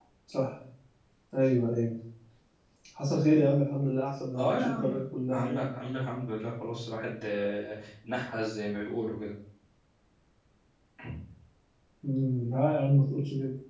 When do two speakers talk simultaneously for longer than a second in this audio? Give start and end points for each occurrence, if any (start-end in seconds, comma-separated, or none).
none